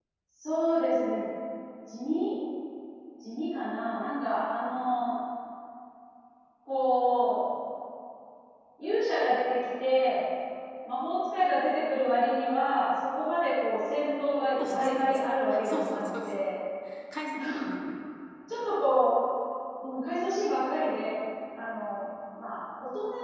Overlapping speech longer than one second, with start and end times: 14.6-16.3

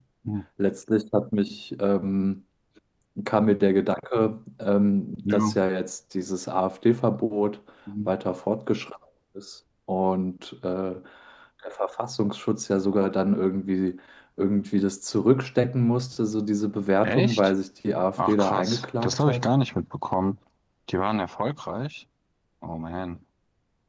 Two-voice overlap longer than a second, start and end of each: 18.2-19.5

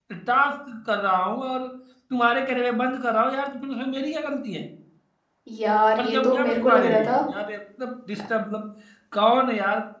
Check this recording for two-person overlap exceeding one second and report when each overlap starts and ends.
6.0-7.2

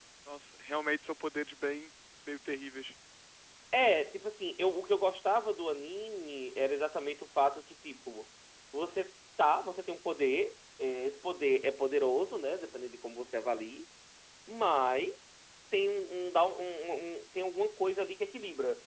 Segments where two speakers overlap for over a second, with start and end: none

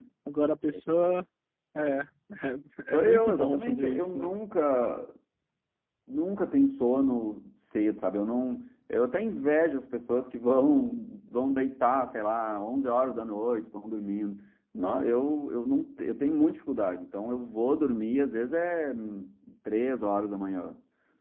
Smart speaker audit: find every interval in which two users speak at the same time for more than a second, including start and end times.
2.9-4.3

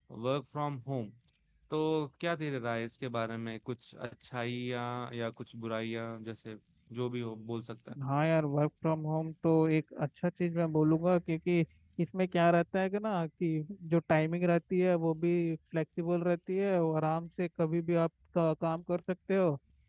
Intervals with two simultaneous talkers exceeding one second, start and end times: none

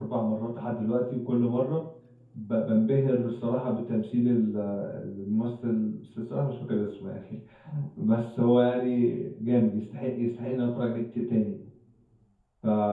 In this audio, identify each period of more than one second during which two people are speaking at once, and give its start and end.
none

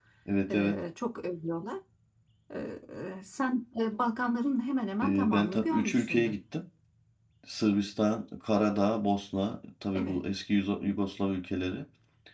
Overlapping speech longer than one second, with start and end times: 5.0-6.3

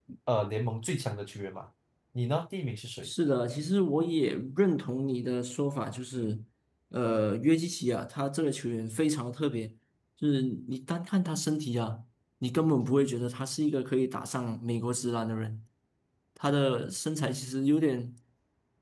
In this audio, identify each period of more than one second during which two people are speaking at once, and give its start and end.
none

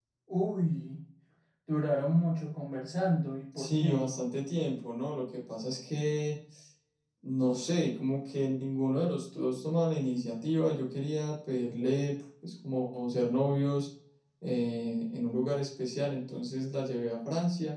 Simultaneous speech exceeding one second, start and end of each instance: none

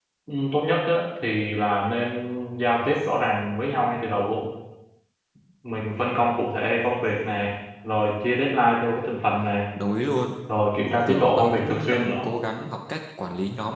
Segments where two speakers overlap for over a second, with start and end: 11.1-12.3

